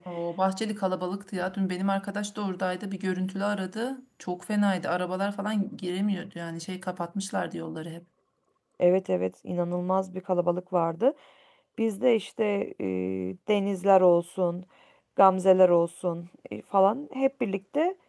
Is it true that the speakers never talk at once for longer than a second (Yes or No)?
Yes